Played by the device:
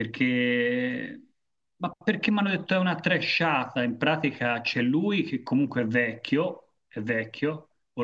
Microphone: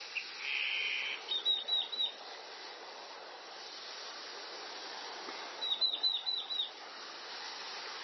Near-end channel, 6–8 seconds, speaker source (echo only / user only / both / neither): neither